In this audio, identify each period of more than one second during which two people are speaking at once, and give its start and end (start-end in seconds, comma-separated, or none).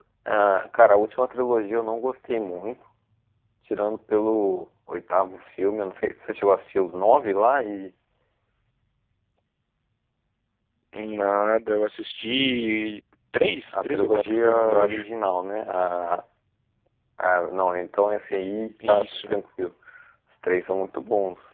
13.7-15.0